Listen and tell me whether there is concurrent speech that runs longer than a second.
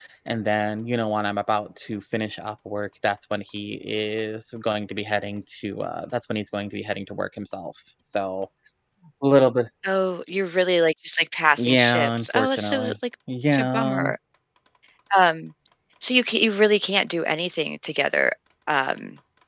Yes, from 11.6 s

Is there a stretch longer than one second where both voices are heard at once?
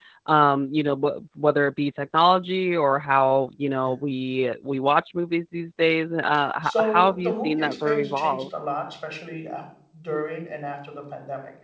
Yes, from 6.6 s

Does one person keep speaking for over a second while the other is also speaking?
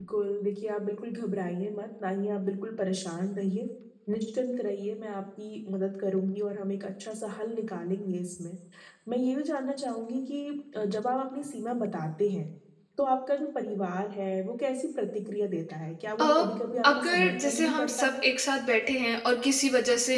Yes, from 16.2 s

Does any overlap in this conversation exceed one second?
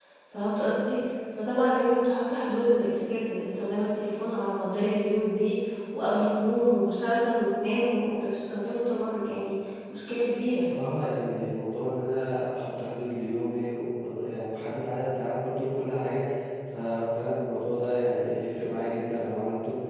No

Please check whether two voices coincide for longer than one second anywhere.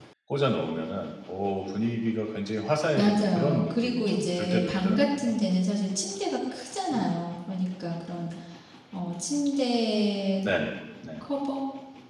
Yes, from 3.0 s

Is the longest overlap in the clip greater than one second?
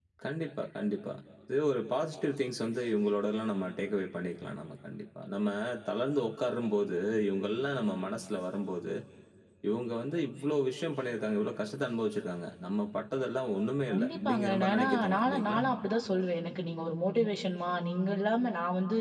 Yes, from 13.9 s

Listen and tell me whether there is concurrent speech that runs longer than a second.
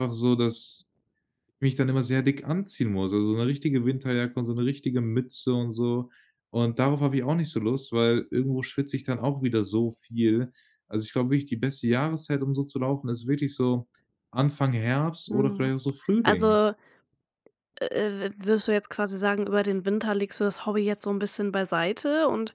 No

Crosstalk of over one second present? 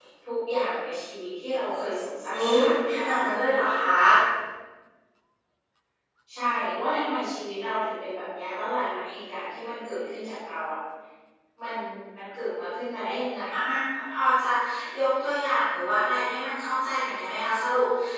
No

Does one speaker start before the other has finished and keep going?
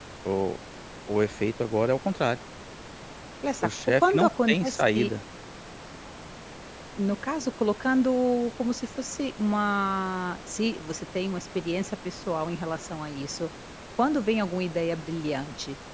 Yes, from 3.6 s

